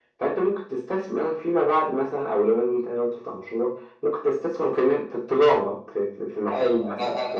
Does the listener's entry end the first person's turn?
Yes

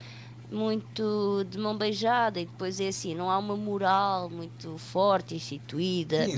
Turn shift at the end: Yes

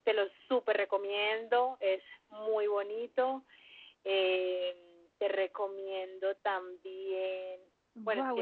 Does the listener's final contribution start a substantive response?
Yes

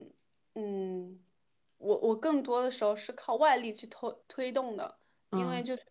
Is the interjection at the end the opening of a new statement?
No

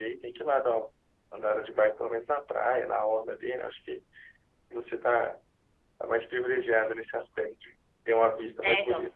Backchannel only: No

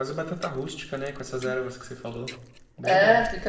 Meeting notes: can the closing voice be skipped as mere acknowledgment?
No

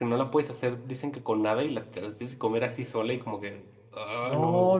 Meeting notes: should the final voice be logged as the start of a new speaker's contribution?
Yes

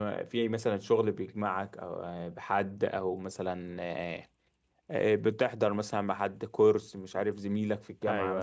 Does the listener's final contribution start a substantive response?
No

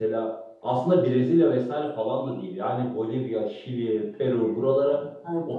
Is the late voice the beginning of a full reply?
Yes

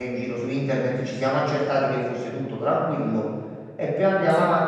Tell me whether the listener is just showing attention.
Yes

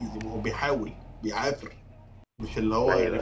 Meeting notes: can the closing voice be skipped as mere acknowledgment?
Yes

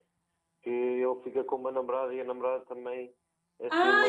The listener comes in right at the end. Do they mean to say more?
Yes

